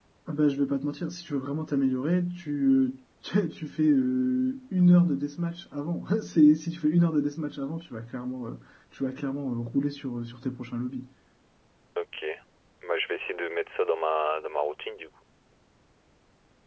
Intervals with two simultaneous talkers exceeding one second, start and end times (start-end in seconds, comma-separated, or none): none